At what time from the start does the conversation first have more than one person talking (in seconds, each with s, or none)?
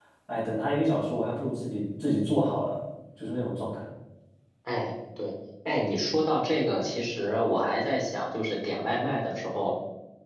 none